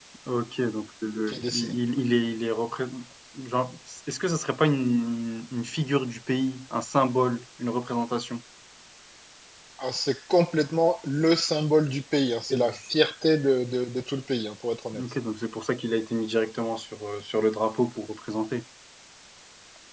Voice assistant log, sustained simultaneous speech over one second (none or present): none